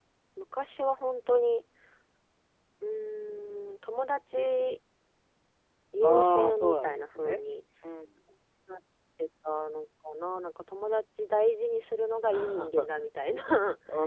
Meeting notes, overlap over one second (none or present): present